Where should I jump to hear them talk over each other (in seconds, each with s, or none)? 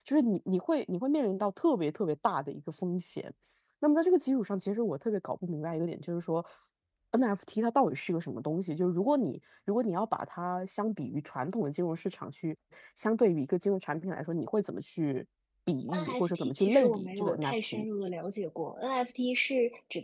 15.9 s